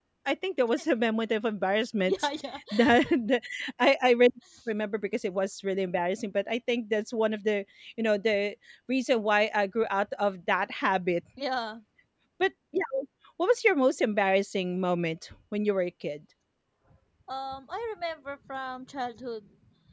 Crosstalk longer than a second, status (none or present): none